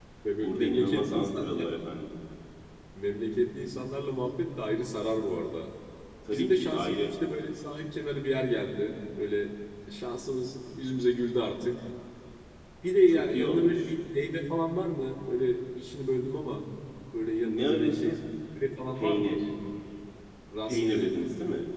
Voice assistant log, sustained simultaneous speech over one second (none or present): present